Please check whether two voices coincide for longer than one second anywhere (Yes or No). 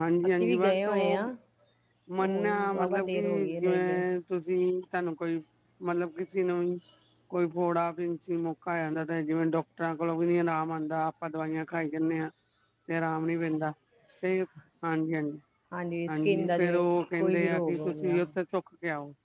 Yes